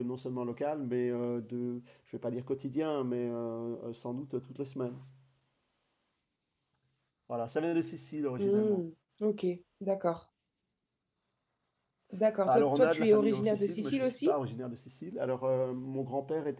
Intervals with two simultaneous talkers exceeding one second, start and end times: 12.5-14.3

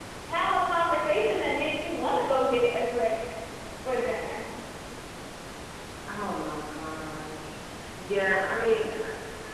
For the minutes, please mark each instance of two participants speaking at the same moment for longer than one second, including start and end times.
none

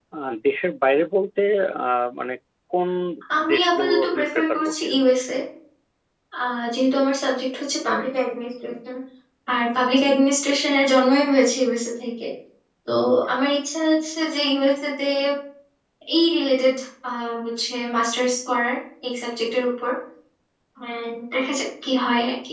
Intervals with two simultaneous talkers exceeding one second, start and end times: 3.5-5.0

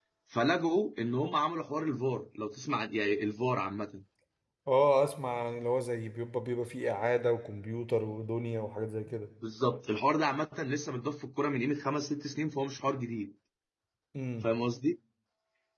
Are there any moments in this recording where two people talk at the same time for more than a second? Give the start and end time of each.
none

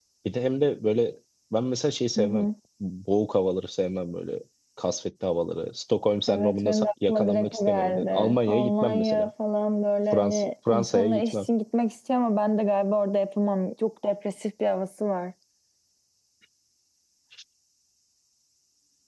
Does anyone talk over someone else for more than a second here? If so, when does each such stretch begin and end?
6.3-9.3, 10.1-11.3

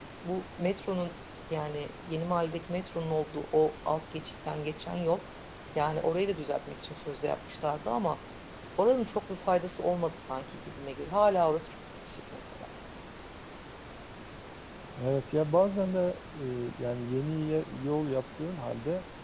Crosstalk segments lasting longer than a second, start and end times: none

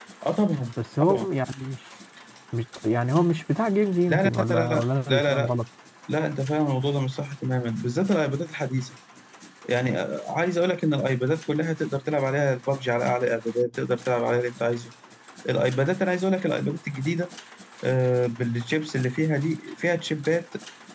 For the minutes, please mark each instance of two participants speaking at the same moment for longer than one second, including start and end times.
4.1-5.5

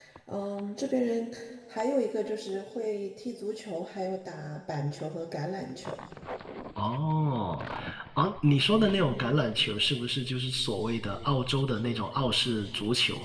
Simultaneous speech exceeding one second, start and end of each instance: none

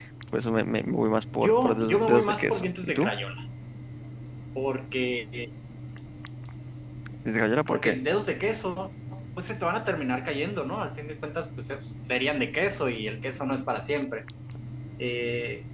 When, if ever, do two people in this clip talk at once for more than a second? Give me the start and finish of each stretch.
1.4-3.1

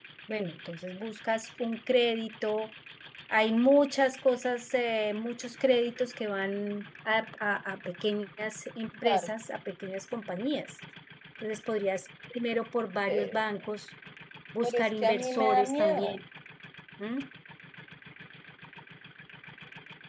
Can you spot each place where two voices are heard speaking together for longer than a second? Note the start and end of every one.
14.6-16.2

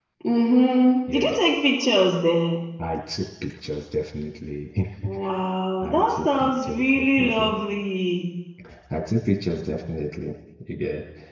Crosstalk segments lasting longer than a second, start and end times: 5.8-7.5

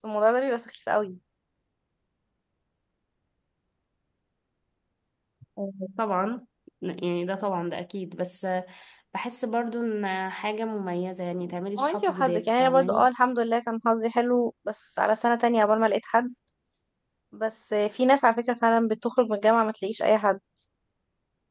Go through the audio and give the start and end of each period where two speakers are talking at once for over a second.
11.8-13.1

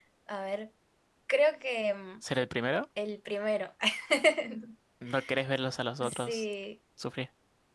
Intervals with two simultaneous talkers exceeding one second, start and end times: none

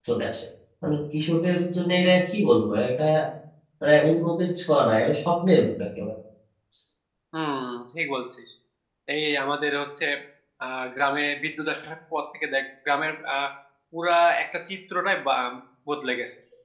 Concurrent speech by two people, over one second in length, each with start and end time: none

